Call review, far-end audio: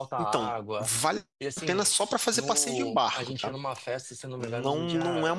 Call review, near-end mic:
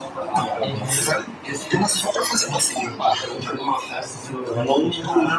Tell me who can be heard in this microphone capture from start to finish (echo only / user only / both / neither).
both